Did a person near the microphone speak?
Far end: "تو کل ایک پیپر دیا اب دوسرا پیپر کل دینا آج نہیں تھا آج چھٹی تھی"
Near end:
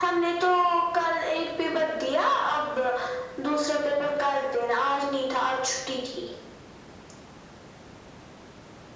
No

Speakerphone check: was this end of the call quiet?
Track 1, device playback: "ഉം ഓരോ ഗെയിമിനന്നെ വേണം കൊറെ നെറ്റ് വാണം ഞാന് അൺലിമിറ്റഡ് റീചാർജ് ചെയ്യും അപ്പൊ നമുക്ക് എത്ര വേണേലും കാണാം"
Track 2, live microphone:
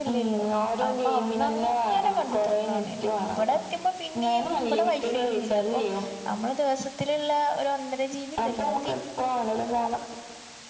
No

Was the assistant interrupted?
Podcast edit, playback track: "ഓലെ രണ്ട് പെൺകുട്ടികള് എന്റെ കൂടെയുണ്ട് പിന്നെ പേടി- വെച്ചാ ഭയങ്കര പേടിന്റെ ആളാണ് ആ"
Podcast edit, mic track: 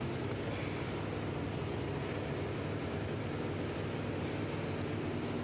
No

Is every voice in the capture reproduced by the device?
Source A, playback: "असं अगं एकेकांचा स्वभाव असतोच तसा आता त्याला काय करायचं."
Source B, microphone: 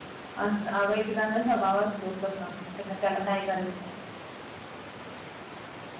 Yes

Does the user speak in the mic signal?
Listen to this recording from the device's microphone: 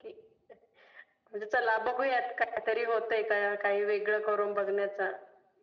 No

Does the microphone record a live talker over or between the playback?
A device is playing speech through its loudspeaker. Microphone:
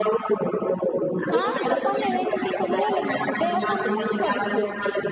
Yes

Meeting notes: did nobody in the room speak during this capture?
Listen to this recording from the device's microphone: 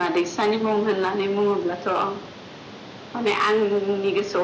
Yes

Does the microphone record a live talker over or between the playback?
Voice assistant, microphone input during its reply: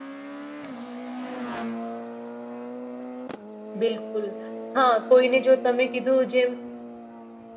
Yes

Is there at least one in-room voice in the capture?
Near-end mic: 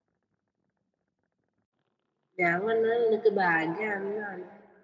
Yes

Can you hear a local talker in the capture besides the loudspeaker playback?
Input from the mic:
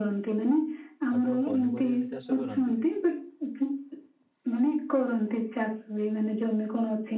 Yes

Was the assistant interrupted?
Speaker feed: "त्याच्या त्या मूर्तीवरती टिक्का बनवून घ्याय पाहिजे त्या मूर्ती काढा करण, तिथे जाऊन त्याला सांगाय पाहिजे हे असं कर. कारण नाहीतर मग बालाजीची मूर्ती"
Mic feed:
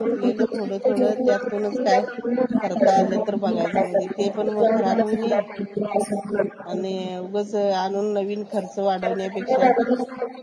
Yes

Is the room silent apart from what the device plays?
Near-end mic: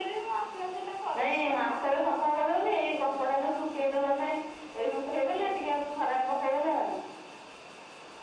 Yes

